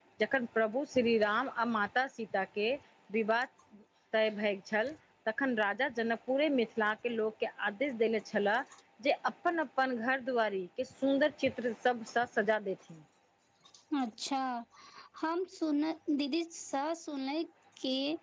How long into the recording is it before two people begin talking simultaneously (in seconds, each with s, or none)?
none